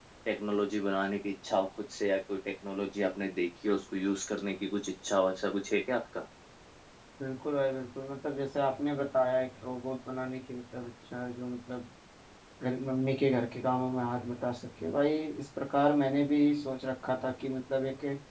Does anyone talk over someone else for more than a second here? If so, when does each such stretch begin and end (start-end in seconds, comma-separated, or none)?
none